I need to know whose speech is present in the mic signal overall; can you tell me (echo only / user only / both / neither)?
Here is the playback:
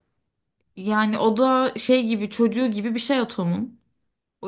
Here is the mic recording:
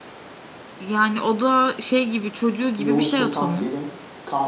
both